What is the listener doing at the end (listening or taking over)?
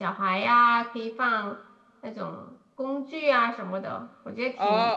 taking over